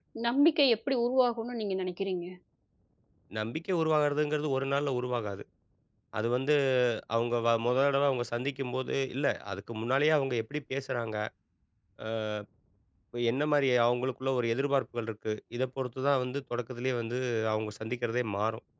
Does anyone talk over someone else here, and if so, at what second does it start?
none

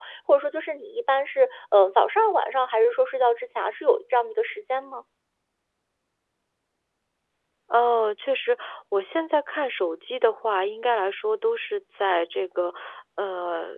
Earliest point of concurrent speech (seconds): none

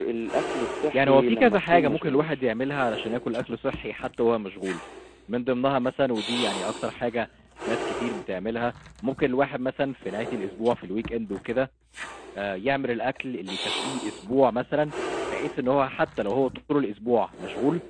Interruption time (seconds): 0.9 s

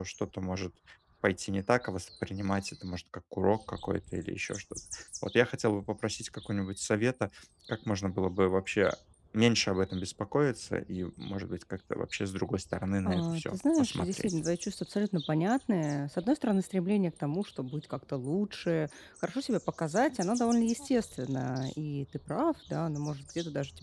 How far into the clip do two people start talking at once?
13.0 s

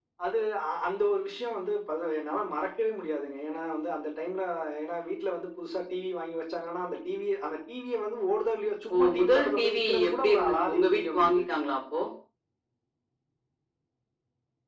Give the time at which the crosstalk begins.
8.9 s

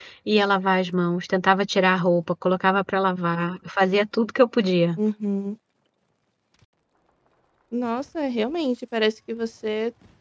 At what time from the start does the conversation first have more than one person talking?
none

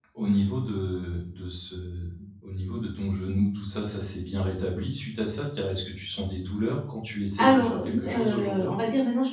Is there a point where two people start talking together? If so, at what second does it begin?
7.4 s

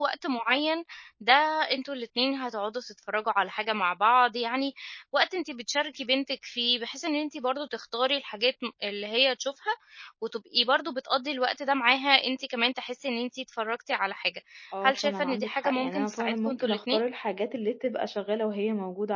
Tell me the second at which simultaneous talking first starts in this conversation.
14.8 s

